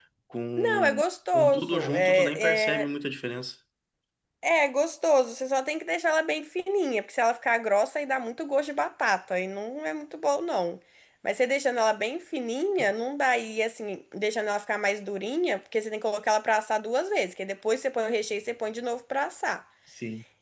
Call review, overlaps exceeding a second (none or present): present